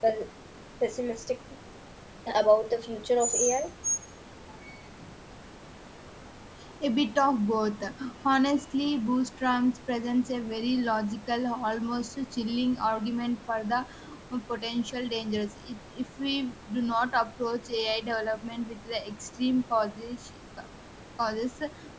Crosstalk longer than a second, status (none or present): none